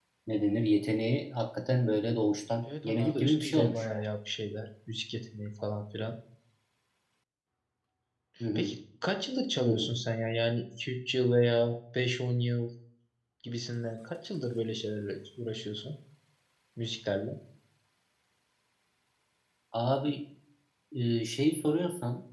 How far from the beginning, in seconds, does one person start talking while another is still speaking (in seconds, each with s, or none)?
2.6 s